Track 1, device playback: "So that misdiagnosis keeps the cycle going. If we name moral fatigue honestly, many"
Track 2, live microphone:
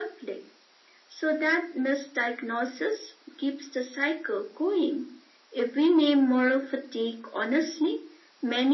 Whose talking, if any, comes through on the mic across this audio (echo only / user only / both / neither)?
echo only